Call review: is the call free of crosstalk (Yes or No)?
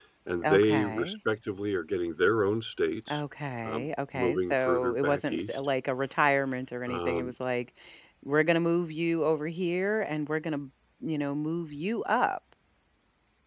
No